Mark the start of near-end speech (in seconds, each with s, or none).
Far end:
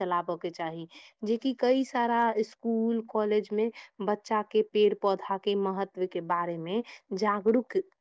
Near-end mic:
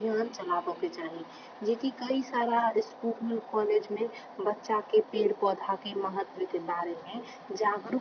none